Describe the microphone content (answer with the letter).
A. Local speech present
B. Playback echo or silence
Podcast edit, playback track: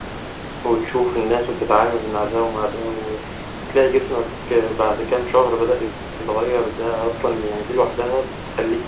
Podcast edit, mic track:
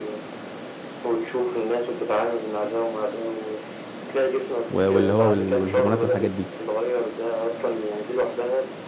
A